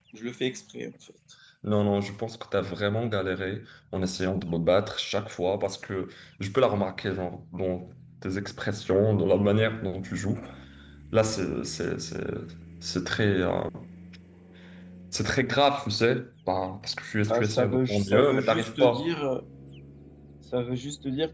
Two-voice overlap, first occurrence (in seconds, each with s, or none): 17.2 s